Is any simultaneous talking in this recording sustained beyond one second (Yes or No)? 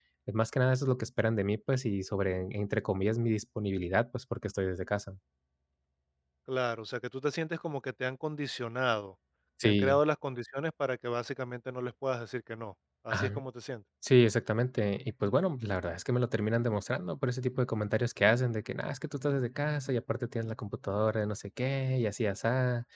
No